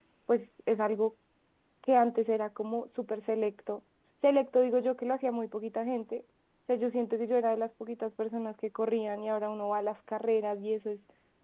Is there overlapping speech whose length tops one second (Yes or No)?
No